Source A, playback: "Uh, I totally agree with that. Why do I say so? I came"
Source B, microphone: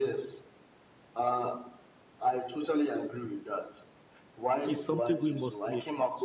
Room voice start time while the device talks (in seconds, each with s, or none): 4.7 s